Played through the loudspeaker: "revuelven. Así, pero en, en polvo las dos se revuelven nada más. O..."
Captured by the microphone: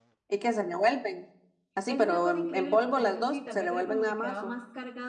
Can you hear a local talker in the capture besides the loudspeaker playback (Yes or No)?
Yes